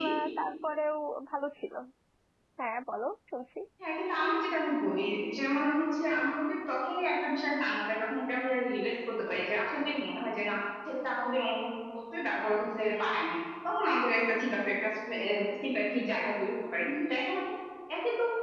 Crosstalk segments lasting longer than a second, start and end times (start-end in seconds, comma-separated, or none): none